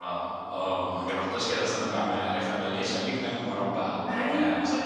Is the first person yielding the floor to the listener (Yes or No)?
Yes